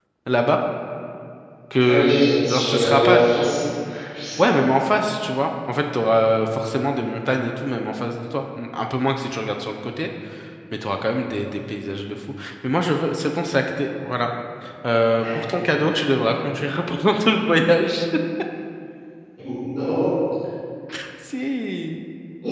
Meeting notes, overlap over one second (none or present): present